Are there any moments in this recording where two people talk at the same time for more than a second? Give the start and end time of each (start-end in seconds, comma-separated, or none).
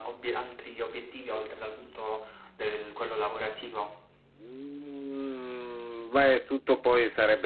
none